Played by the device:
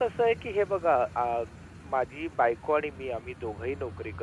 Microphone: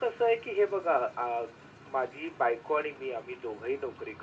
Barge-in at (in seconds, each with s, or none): none